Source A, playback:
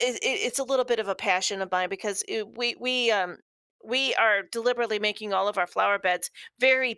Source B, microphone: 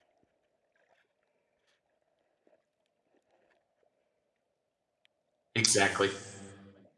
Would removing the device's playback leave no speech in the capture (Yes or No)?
No